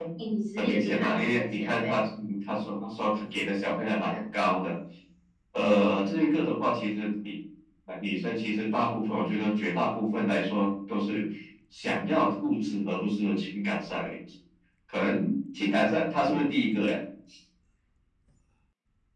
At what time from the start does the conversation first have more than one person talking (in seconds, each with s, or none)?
0.6 s